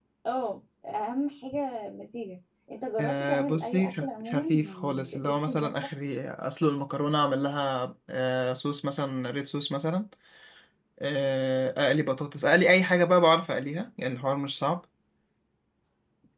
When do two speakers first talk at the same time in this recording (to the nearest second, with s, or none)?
3 s